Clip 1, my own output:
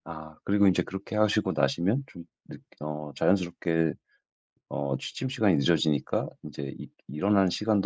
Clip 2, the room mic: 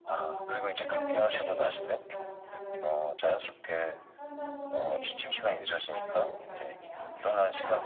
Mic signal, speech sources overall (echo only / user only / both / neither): both